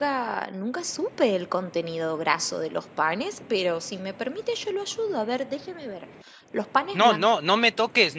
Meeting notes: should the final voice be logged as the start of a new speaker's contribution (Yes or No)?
Yes